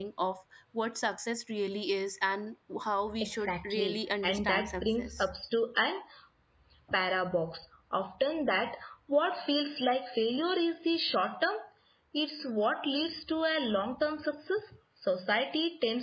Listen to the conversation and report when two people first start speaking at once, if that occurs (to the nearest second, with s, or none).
3 s